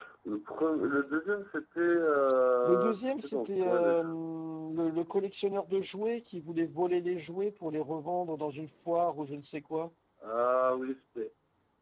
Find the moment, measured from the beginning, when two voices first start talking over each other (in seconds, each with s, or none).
2.6 s